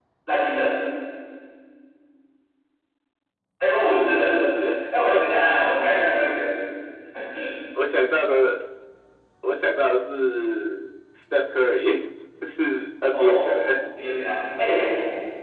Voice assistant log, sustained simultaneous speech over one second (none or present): none